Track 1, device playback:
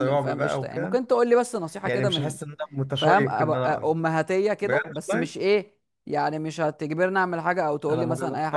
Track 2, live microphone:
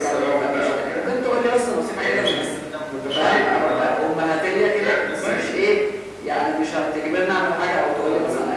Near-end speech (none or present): none